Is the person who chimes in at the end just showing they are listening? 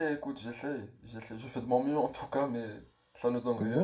No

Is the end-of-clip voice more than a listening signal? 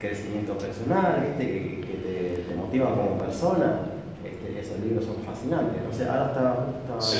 No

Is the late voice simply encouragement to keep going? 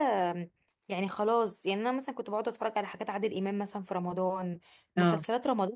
Yes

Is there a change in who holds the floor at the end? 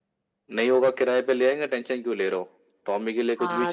Yes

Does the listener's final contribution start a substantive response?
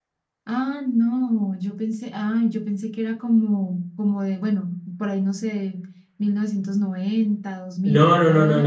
Yes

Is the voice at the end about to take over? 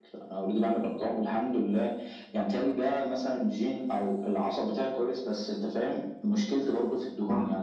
No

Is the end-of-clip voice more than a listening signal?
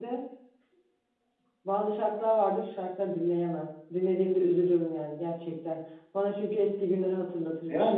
Yes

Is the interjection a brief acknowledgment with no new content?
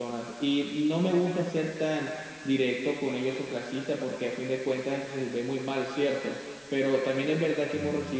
Yes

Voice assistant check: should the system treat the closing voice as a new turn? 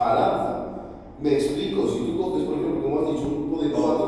No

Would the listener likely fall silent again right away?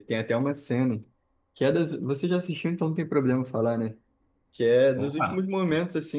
Yes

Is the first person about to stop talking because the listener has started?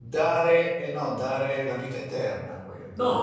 Yes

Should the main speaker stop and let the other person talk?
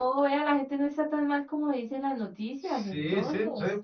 Yes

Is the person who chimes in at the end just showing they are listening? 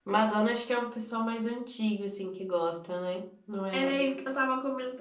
No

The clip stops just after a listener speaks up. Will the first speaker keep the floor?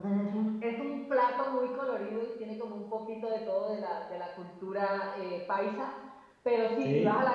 Yes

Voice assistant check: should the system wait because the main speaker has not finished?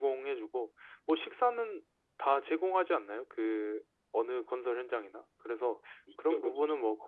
Yes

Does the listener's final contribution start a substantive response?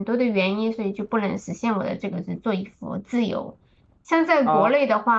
No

